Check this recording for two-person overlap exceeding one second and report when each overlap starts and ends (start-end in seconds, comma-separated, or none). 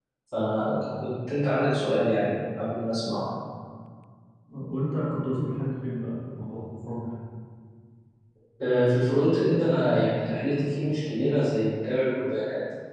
none